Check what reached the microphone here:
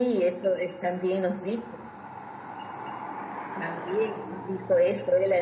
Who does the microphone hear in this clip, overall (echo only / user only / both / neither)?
echo only